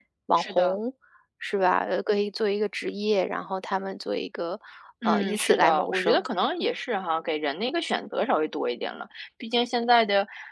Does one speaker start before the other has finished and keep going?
Yes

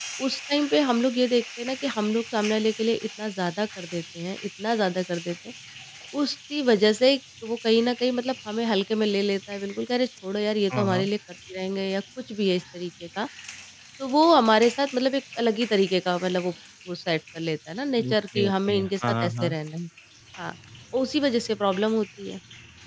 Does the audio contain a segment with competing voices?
Yes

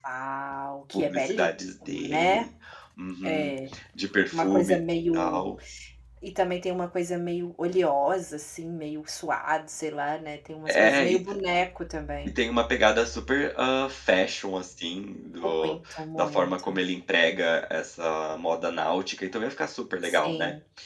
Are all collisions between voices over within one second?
No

